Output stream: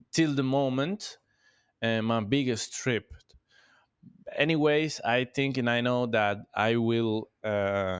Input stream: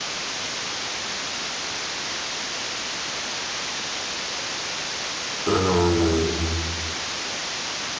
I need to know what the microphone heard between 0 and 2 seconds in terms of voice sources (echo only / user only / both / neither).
neither